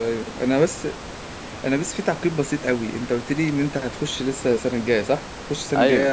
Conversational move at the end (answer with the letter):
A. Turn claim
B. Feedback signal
B